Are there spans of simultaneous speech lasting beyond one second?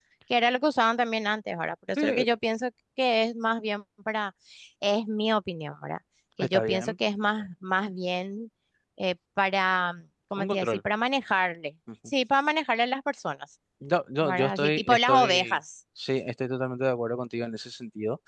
Yes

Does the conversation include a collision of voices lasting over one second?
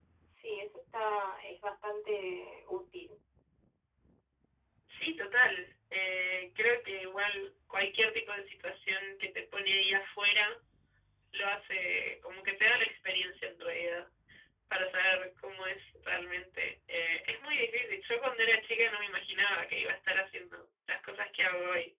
No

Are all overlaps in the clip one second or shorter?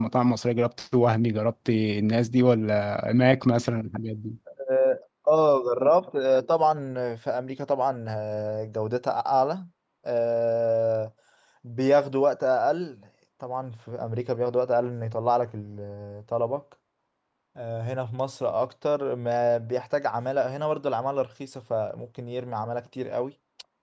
Yes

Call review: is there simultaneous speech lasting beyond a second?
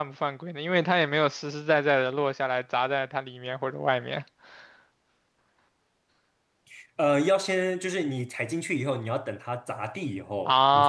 No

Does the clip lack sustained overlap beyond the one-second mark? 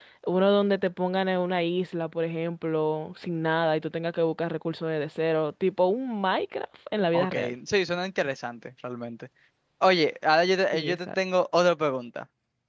Yes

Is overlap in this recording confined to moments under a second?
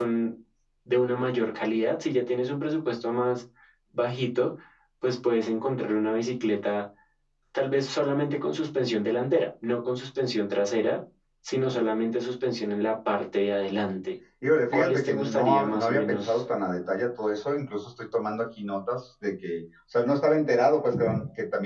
No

